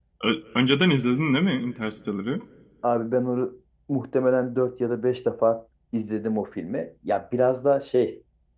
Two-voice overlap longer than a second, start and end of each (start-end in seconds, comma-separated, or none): none